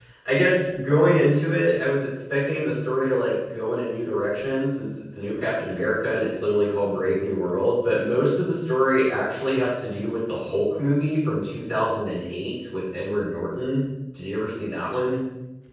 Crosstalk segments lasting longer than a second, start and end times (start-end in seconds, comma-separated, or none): none